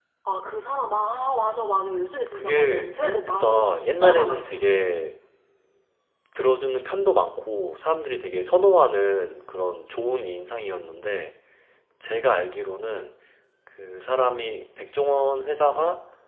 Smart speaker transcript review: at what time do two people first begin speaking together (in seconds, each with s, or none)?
2.3 s